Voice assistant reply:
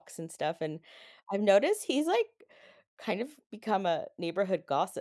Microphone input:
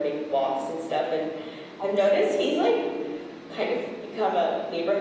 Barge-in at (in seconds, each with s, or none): none